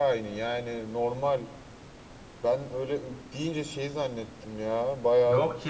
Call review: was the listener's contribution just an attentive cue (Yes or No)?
No